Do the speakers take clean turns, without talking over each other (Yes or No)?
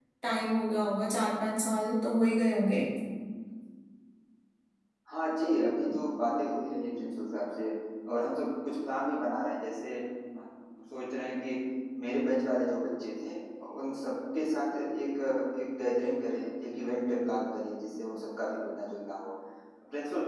Yes